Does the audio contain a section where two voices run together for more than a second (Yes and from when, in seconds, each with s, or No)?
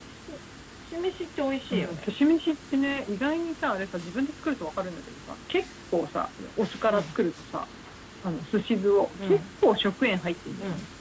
No